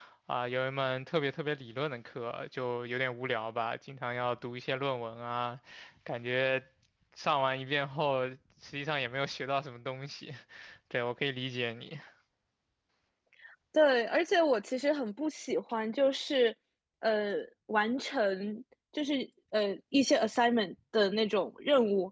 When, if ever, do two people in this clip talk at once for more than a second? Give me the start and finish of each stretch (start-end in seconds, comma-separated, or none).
none